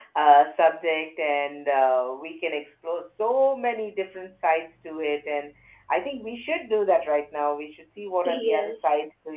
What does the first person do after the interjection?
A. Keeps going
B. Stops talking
A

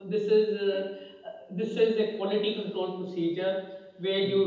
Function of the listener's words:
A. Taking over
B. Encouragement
B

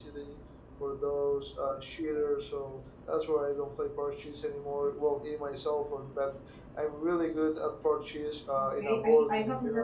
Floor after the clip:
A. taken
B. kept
A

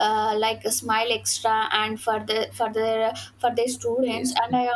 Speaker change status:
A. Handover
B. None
B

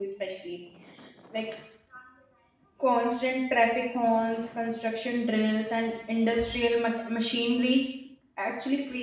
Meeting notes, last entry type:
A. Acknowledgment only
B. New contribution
A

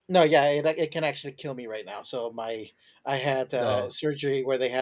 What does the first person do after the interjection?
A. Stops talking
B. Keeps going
B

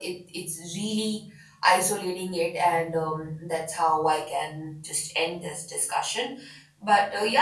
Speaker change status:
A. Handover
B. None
B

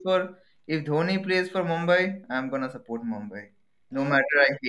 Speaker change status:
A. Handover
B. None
A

